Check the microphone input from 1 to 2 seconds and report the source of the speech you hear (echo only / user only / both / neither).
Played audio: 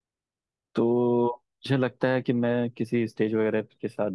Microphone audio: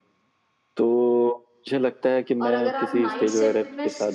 echo only